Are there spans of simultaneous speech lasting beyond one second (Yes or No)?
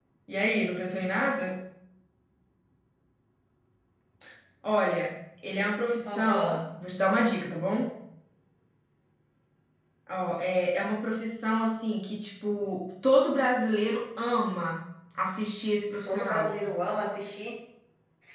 No